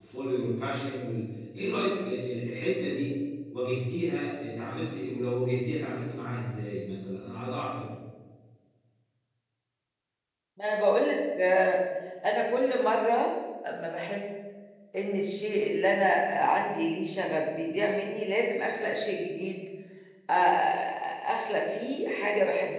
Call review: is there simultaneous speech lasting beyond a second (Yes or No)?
No